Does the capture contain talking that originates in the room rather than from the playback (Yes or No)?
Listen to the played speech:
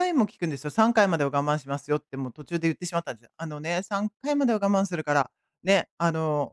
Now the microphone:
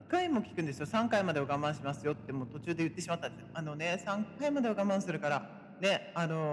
No